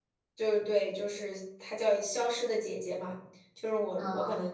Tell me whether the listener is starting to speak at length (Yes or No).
No